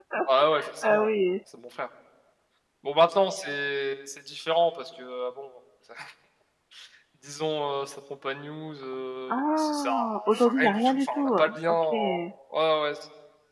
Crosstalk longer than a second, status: present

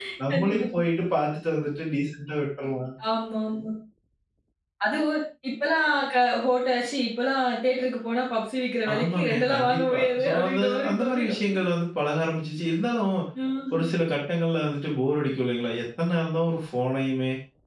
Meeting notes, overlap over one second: present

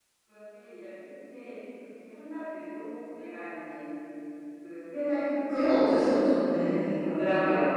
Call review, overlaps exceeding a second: present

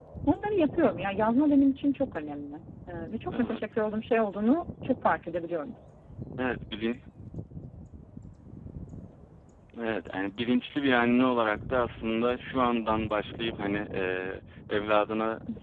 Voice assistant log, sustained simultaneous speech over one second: none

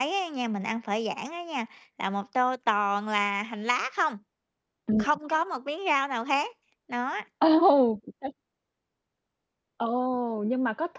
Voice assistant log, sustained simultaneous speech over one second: none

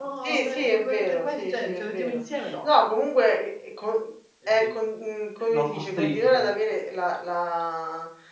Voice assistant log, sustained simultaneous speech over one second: present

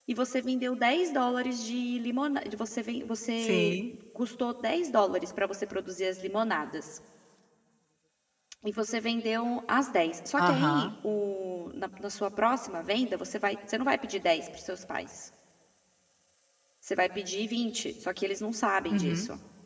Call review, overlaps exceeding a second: none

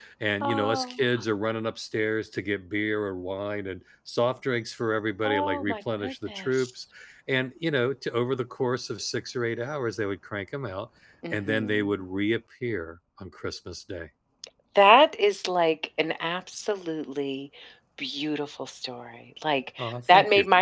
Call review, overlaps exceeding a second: present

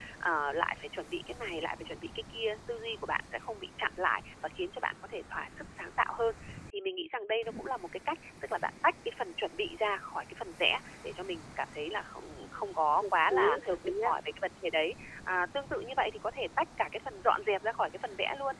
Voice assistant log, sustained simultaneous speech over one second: present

